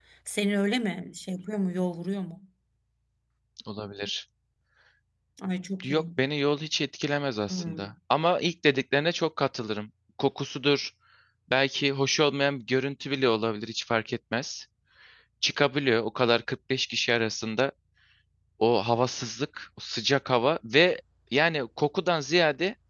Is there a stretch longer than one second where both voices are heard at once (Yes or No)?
No